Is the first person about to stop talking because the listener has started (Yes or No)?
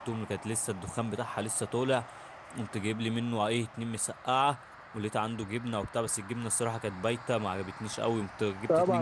Yes